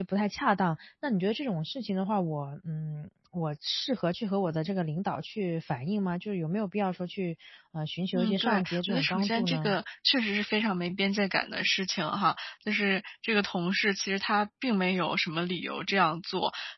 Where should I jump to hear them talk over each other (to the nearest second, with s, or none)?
8 s